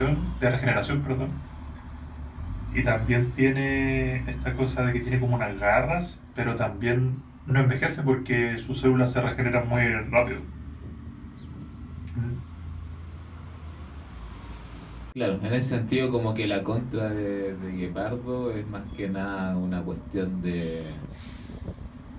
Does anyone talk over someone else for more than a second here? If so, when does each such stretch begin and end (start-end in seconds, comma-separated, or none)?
none